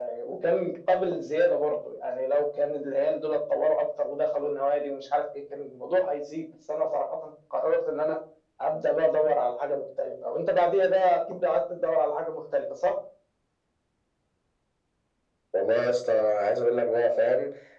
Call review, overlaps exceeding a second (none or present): none